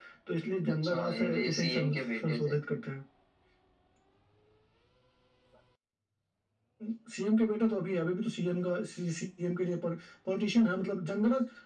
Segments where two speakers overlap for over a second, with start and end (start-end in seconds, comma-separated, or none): 0.8-2.5